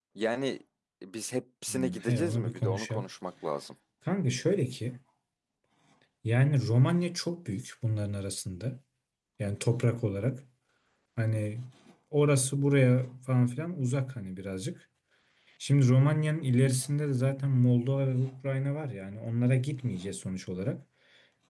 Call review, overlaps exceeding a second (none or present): present